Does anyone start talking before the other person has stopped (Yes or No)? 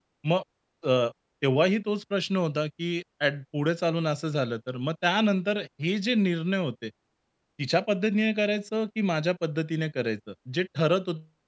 No